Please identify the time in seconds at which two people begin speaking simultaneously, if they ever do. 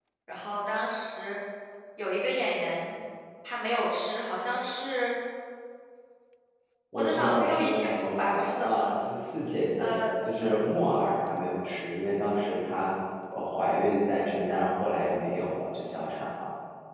6.9 s

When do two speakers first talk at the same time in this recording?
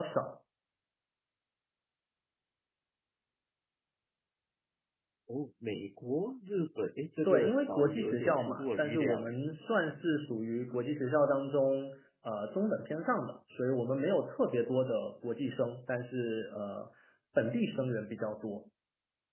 7.2 s

